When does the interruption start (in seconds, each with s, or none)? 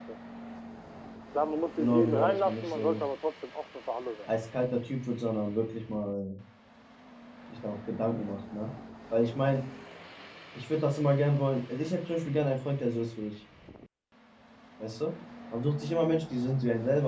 1.8 s